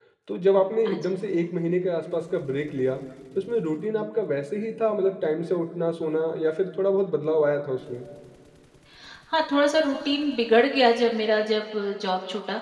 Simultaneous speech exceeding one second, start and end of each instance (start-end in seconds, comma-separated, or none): none